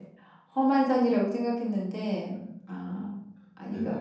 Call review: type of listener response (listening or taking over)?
taking over